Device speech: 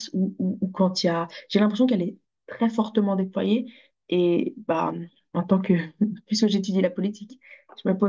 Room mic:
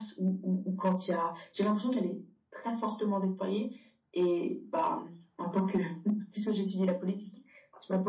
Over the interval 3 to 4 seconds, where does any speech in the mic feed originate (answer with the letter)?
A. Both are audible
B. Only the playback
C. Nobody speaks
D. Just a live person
B